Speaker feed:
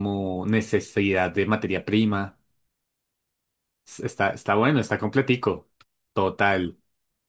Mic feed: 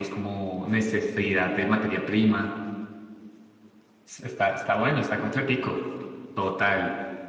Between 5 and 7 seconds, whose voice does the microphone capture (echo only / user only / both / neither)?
echo only